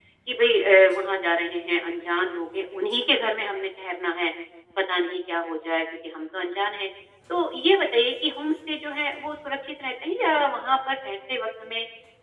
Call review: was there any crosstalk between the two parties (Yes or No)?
No